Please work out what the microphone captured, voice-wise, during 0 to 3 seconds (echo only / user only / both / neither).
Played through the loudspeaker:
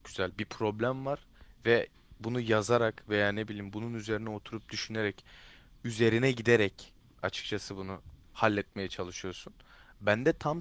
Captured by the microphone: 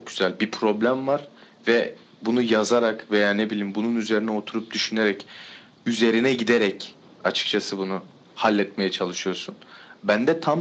echo only